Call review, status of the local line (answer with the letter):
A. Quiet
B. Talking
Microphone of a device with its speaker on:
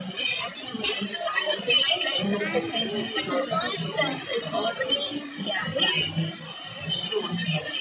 B